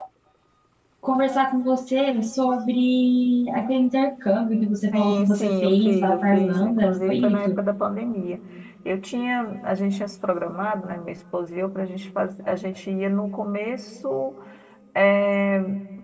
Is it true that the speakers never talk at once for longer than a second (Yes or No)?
No